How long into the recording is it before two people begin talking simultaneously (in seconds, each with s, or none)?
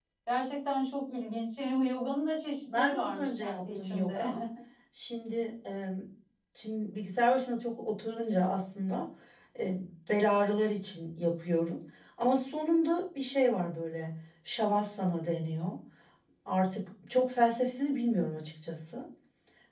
2.7 s